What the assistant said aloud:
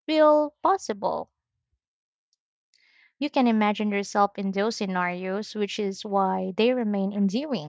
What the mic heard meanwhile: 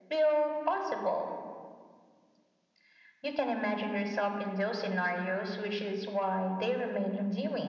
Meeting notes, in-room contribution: none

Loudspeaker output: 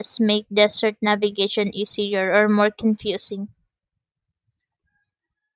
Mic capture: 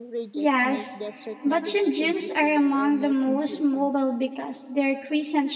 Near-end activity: present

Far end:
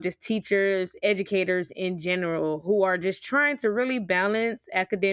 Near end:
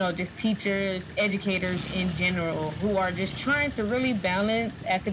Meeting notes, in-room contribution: none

